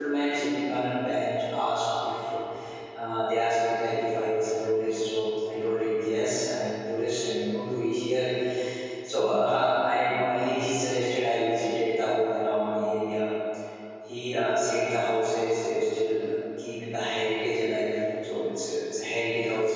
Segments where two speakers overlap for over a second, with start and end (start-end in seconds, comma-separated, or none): none